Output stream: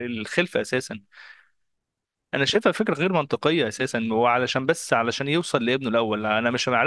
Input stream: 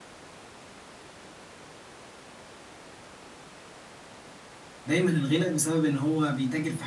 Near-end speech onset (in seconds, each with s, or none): 4.8 s